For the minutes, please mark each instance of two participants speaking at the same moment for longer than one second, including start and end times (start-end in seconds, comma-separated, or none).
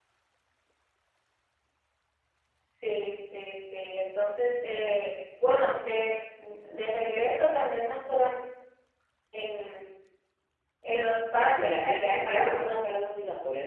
11.5-12.9